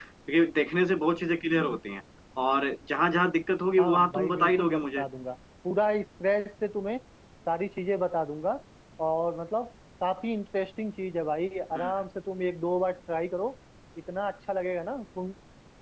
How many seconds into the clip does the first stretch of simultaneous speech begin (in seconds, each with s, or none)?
3.8 s